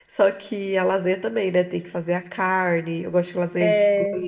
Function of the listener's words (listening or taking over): listening